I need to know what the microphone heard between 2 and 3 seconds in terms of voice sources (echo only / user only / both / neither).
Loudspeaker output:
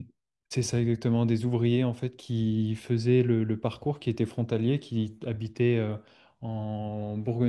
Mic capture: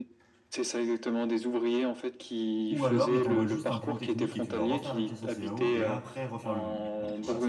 both